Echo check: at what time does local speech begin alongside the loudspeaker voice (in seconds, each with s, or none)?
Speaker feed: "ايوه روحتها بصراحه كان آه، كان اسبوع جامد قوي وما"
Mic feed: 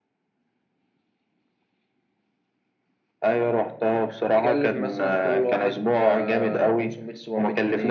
4.3 s